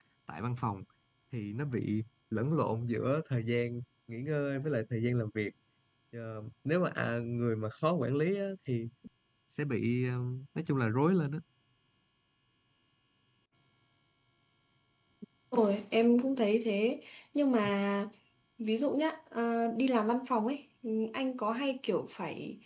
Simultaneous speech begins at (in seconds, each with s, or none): none